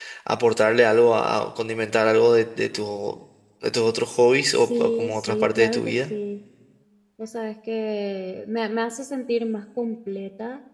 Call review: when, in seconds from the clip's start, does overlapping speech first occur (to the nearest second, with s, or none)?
5 s